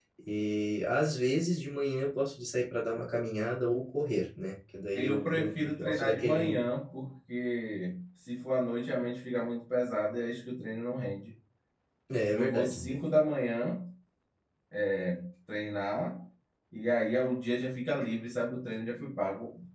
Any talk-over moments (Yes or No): Yes